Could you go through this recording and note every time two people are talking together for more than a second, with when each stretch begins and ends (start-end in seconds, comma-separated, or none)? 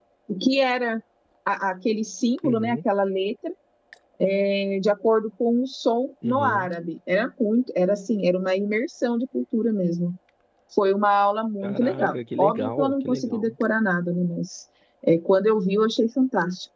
11.6-13.5